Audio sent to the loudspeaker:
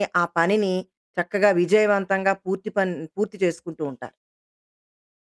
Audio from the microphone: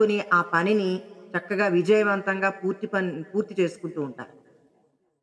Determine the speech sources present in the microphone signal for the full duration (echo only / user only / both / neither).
echo only